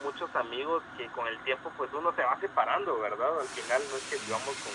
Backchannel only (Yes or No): Yes